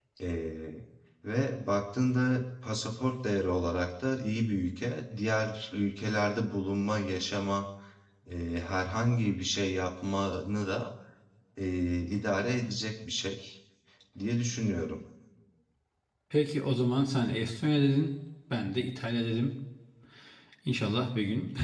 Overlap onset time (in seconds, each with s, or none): none